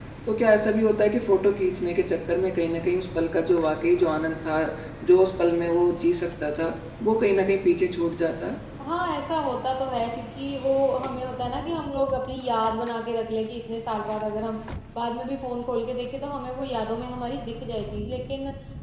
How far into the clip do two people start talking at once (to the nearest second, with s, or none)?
none